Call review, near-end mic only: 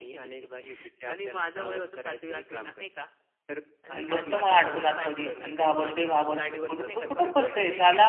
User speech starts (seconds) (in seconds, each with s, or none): 3.9 s